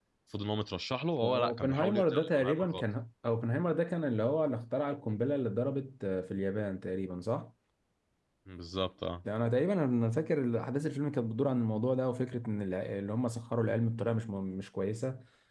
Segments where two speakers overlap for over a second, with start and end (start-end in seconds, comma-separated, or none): 1.2-2.8